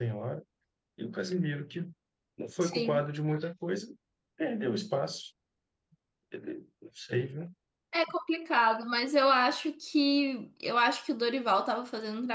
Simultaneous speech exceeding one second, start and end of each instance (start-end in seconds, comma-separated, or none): none